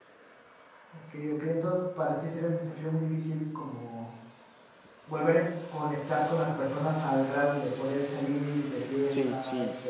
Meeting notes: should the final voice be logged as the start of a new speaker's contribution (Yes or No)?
Yes